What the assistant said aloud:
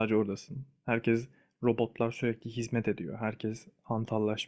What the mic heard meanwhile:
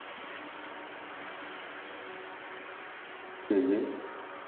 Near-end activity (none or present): present